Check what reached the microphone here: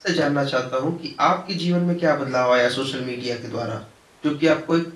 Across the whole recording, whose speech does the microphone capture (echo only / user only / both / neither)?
user only